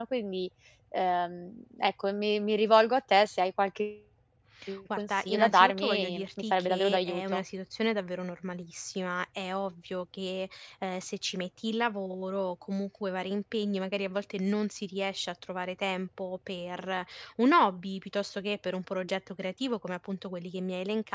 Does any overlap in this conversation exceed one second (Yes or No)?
Yes